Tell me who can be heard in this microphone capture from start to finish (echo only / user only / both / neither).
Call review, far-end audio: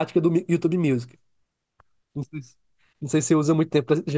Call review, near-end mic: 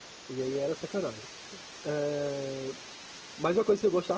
user only